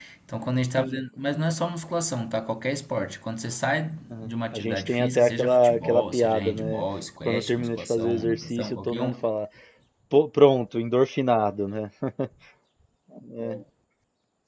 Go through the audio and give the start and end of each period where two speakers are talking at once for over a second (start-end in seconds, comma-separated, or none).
4.1-6.8, 7.2-9.2